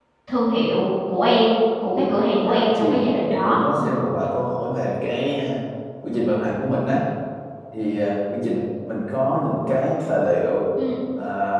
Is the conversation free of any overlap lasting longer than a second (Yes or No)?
No